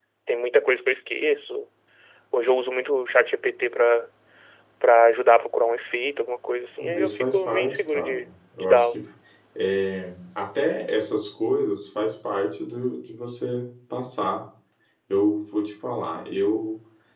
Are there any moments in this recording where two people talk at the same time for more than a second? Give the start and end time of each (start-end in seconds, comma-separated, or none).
6.8-8.1